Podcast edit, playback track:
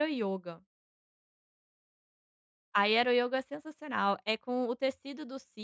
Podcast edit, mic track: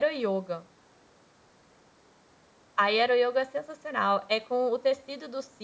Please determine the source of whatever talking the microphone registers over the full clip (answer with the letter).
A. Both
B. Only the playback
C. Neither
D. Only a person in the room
B